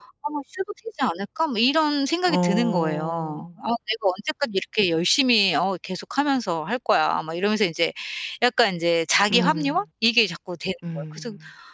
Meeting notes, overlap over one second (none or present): present